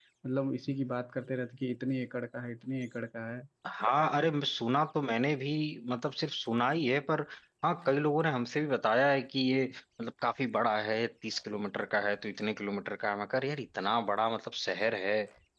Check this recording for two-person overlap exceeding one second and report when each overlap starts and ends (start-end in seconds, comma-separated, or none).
none